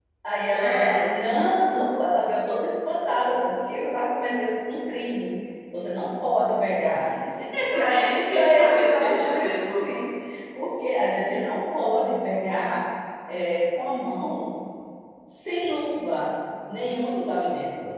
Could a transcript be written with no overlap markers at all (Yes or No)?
No